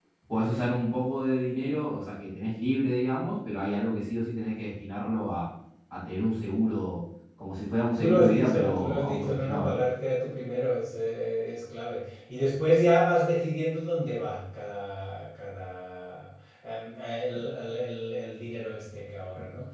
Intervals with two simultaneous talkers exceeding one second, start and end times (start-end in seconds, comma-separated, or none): 8.0-9.8